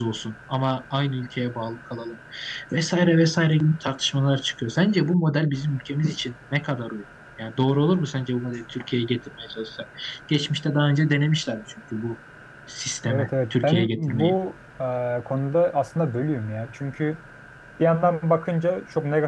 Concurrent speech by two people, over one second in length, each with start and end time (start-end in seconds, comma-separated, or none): 13.1-14.4